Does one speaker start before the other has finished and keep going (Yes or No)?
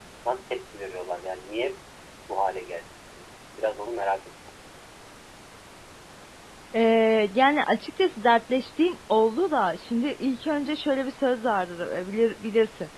No